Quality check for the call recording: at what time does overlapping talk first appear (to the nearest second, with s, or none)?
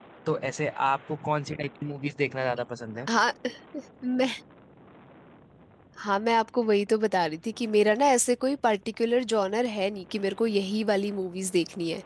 none